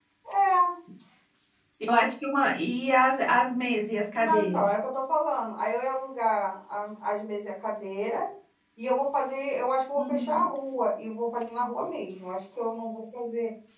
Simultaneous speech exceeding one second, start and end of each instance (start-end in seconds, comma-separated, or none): none